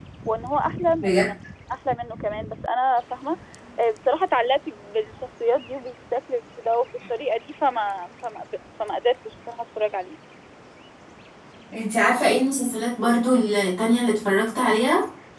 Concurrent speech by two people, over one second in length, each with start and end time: none

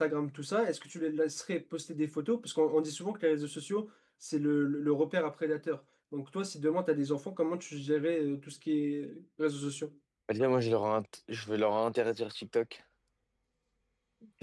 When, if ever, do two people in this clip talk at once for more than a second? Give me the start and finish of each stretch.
none

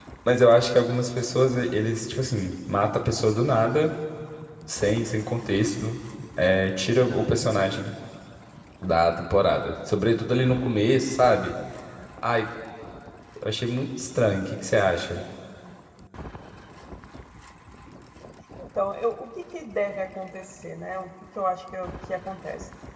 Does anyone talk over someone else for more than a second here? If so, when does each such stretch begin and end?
none

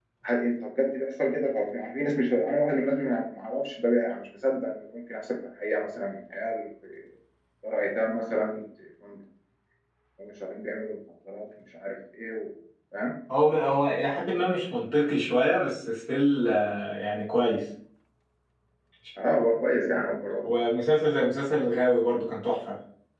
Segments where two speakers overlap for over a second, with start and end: none

